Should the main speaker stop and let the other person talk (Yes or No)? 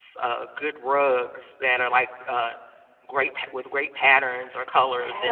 Yes